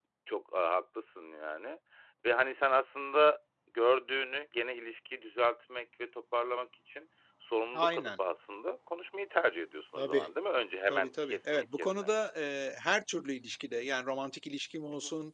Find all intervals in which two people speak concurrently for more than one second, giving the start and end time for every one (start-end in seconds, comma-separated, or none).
10.9-12.1